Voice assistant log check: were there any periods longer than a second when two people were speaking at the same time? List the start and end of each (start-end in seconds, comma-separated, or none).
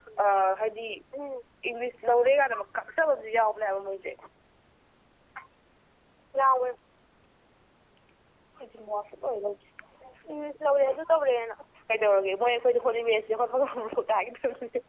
none